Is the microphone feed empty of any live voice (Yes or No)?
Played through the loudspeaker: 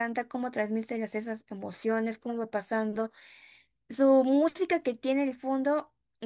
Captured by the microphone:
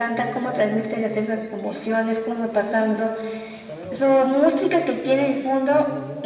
No